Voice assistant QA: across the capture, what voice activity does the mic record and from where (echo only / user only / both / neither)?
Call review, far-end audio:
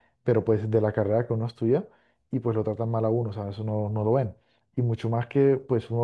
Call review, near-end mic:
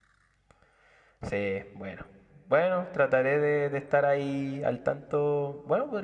user only